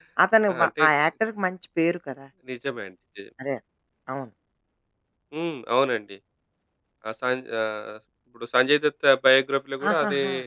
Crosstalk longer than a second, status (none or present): none